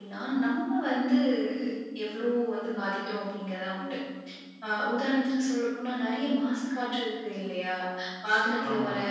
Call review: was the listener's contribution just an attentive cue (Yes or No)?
Yes